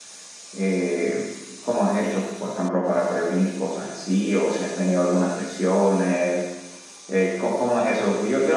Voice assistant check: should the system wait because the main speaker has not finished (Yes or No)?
Yes